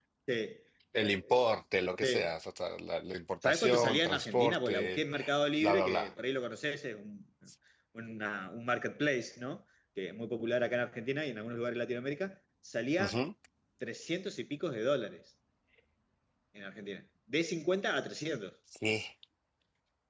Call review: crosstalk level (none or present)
present